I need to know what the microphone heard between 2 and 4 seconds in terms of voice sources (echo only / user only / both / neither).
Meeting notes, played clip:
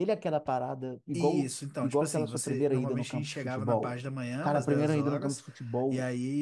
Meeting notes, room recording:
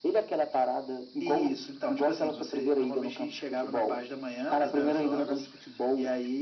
echo only